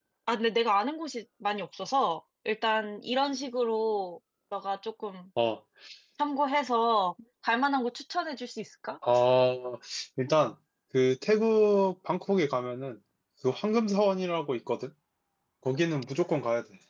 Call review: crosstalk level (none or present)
none